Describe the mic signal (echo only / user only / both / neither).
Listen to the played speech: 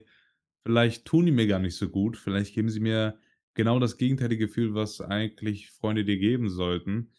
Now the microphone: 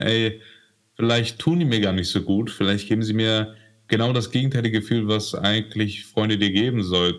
echo only